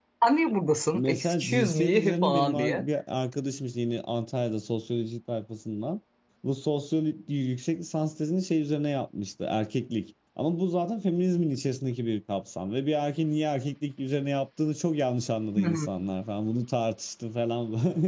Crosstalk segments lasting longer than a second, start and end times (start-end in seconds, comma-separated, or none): 0.9-2.8